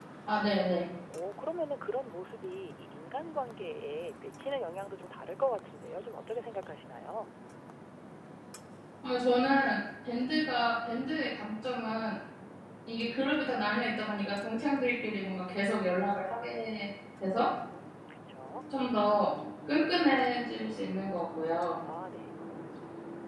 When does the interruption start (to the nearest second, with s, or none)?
none